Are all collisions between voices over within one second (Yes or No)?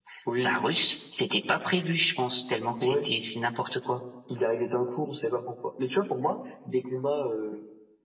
Yes